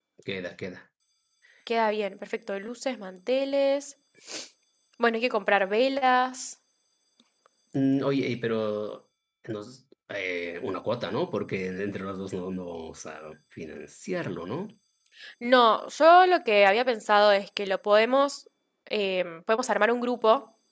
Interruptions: none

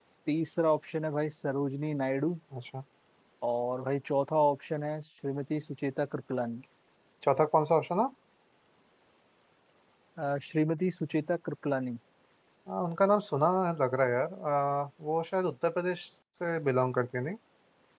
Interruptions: none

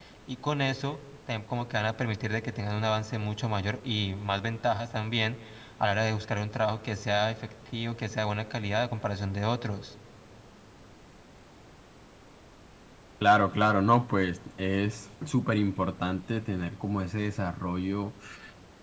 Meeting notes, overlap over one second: none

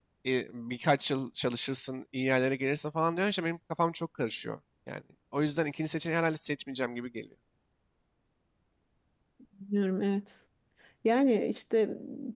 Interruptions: none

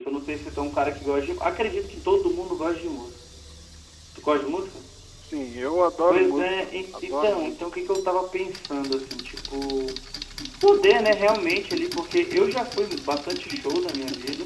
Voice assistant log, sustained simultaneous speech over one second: present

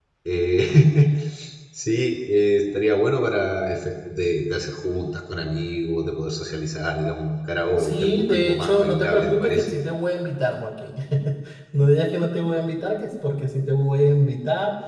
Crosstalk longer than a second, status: present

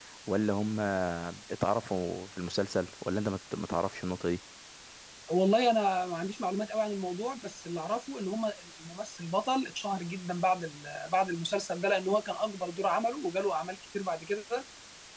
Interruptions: none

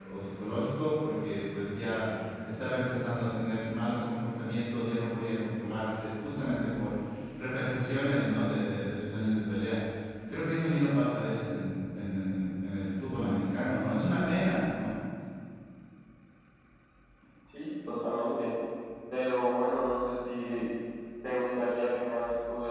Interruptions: none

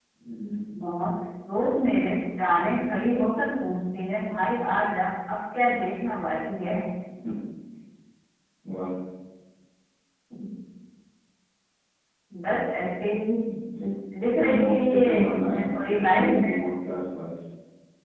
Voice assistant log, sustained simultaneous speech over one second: present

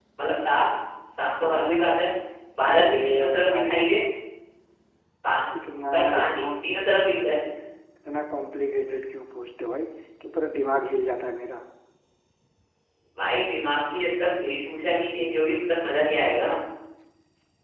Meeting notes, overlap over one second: present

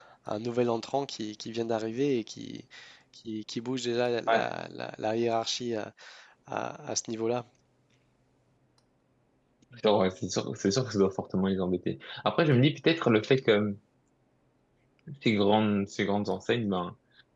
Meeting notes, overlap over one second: none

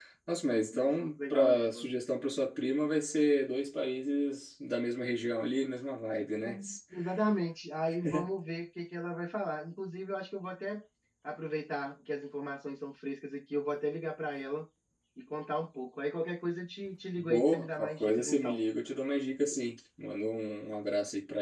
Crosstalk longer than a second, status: present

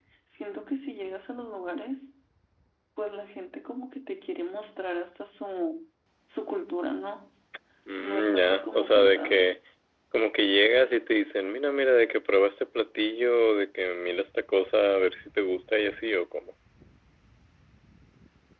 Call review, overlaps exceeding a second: present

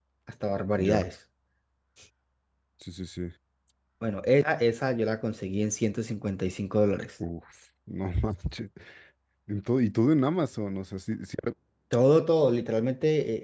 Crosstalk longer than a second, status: none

